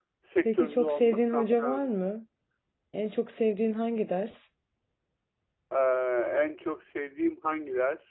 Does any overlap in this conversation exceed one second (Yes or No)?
Yes